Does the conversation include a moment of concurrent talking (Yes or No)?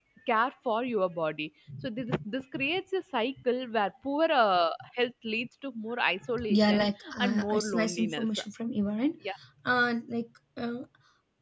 Yes